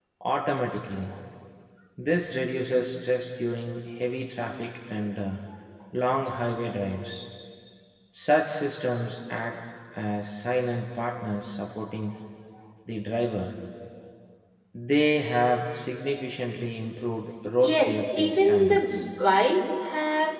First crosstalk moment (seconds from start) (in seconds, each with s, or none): 17.6 s